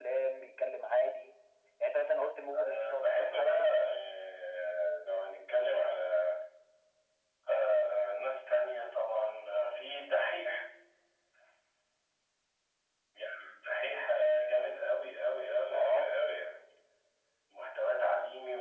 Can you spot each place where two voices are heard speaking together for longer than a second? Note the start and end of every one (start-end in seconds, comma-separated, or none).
2.5-3.8